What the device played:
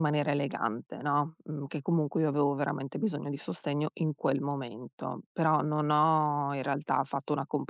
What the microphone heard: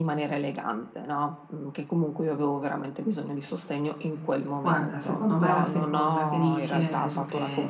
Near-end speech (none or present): present